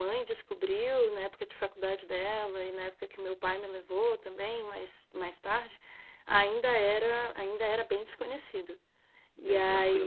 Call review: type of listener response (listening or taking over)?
taking over